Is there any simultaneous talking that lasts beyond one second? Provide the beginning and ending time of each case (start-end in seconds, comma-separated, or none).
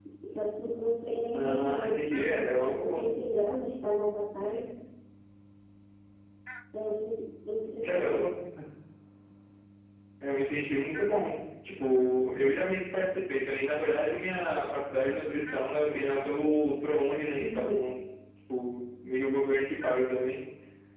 1.3-3.0